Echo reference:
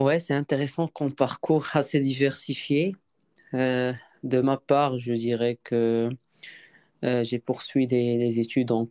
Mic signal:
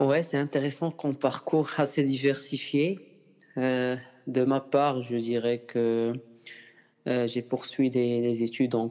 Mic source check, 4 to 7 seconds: echo only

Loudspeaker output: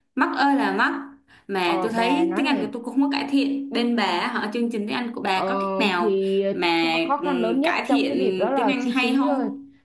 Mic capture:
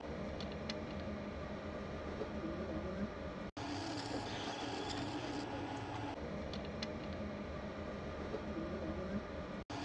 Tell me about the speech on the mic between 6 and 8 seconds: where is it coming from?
neither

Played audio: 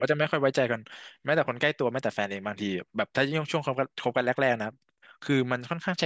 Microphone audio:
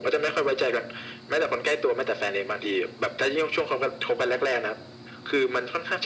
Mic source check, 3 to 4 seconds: echo only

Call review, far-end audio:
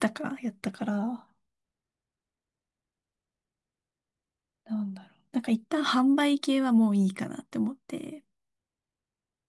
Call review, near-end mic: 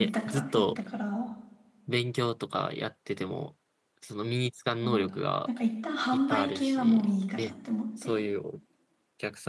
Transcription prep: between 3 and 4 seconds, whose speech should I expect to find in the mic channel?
user only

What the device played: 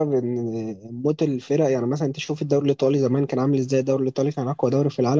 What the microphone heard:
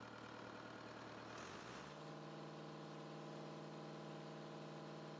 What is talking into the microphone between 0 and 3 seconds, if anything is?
neither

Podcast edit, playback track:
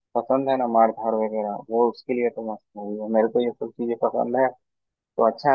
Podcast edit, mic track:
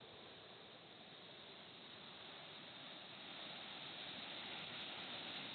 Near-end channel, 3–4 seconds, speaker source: neither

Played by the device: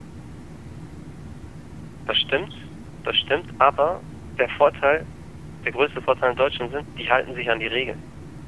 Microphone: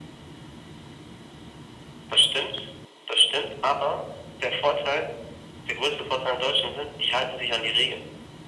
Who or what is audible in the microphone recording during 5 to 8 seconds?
echo only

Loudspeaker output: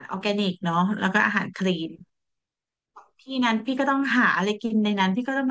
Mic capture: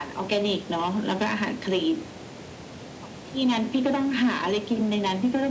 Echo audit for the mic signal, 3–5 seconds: echo only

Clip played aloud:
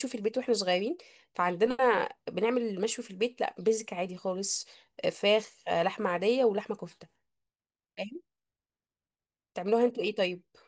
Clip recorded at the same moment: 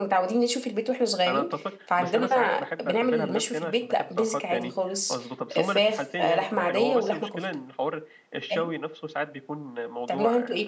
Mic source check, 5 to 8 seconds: both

